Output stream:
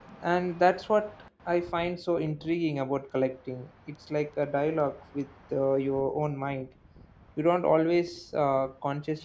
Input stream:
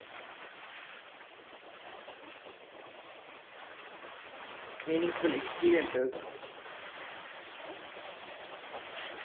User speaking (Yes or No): Yes